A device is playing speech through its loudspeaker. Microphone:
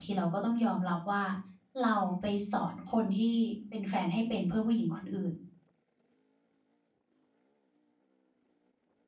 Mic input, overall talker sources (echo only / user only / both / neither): user only